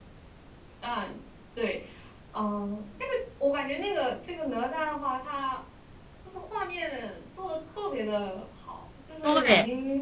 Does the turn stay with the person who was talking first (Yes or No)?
Yes